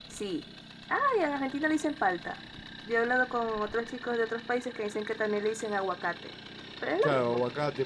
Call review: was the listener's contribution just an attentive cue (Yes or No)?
No